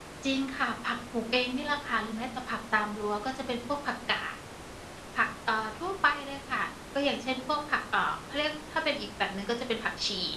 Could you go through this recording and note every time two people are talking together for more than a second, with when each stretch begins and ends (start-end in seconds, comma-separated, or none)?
none